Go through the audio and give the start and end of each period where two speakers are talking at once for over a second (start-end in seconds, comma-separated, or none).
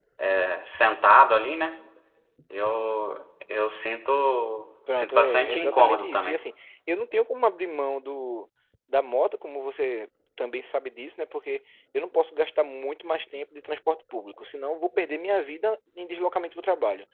4.9-6.5